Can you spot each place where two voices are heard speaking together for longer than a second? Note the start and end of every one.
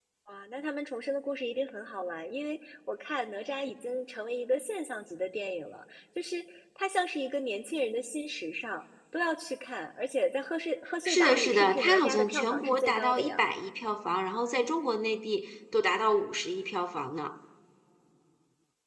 11.0-13.4

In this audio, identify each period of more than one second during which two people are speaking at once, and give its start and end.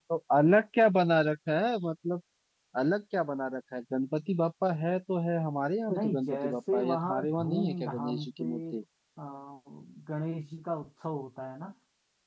6.0-8.8

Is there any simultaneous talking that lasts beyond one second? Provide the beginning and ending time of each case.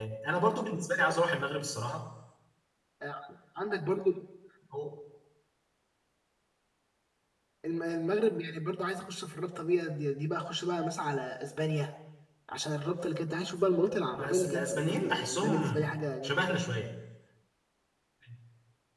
14.2-15.8

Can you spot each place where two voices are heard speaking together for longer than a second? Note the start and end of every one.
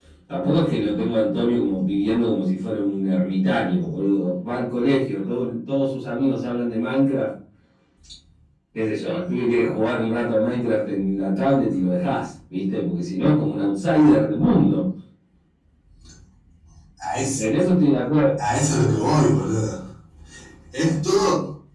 none

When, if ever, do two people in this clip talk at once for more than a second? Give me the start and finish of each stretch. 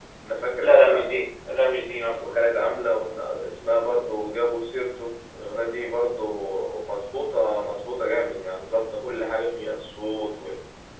none

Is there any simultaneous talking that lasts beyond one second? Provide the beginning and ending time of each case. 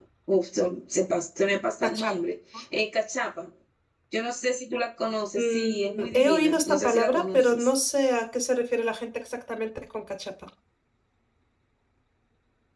5.4-7.7

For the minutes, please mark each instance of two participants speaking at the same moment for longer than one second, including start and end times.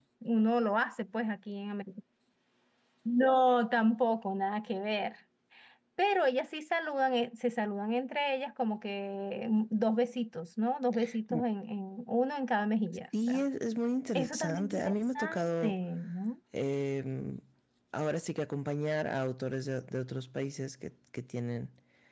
14.2-15.7

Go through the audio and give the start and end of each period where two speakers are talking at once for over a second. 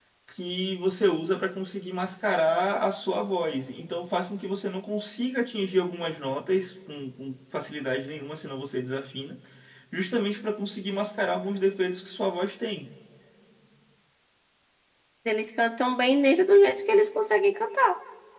none

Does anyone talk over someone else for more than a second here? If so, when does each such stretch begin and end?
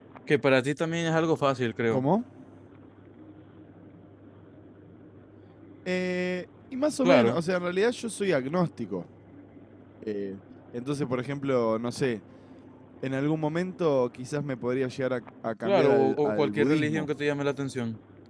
15.6-17.1

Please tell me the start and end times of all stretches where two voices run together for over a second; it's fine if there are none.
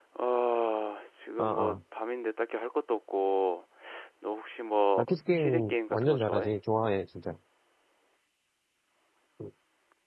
5.0-6.5

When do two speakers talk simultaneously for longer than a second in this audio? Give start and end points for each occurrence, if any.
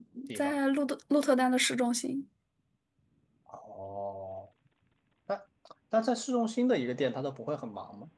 none

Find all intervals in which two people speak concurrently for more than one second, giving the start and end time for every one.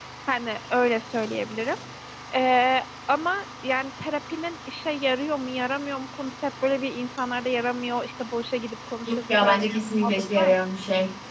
9.1-10.6

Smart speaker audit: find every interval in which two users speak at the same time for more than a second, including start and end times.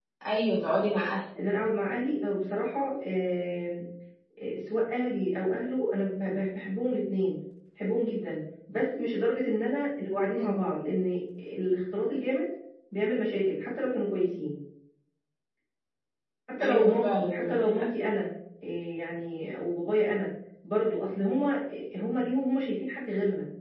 16.6-17.8

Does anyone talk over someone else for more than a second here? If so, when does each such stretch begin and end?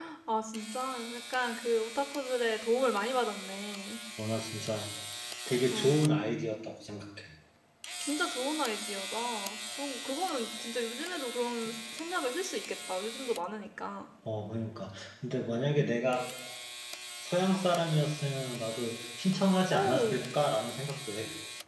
none

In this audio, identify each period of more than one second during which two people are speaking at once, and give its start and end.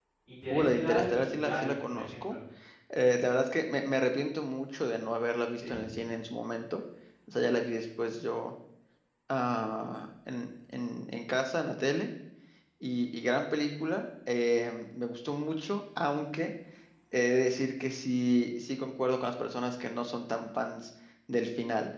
0.5-2.4

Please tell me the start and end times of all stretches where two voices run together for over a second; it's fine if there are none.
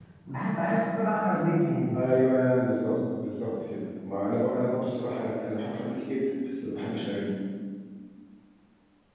none

